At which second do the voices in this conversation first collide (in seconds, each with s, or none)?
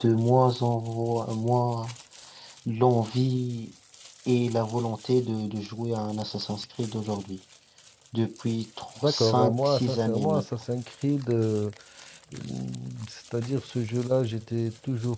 9.0 s